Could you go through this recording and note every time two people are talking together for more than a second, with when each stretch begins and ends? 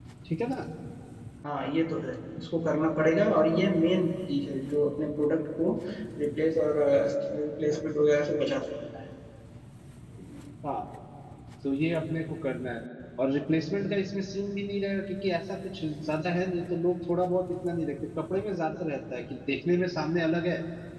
none

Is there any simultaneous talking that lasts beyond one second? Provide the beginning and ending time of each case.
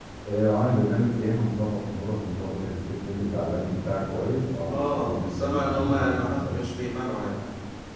4.7-6.6

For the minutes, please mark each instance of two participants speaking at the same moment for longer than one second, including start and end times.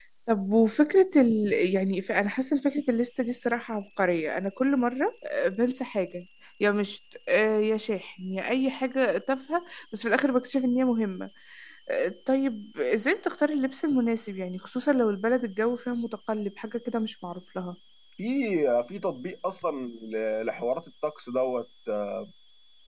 none

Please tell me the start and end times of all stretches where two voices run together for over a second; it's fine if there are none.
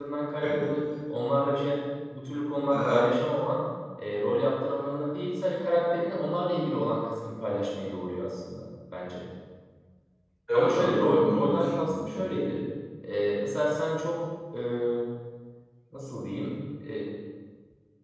10.5-12.4

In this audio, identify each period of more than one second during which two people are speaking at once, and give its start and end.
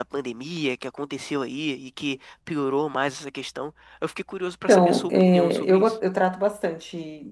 4.7-5.9

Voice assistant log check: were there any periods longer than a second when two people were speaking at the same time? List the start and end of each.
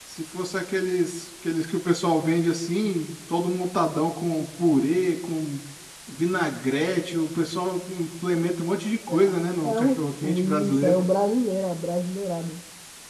9.7-11.0

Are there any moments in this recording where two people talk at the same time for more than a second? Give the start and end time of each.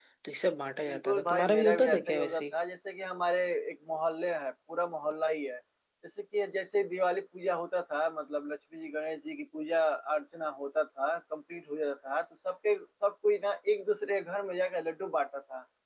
0.9-2.4

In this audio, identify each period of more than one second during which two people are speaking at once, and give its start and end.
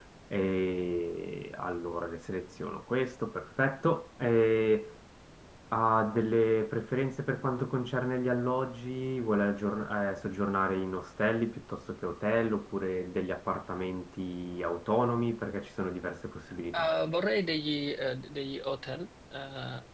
none

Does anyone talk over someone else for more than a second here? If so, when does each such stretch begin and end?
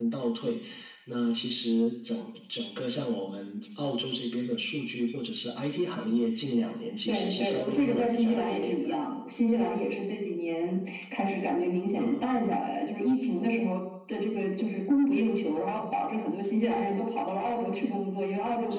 7.1-9.0

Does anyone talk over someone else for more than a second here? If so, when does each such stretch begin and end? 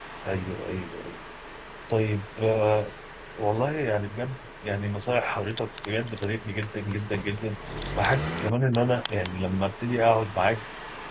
none

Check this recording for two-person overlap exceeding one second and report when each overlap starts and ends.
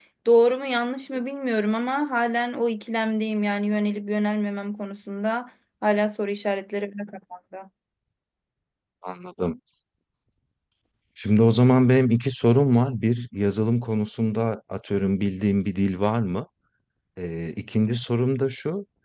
none

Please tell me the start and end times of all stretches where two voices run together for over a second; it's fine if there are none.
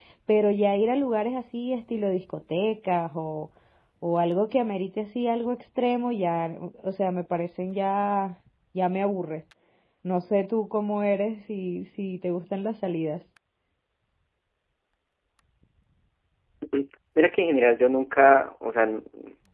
none

